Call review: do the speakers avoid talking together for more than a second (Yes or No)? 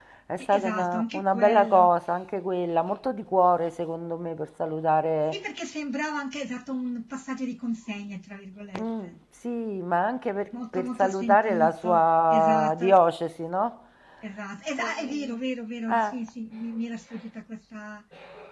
No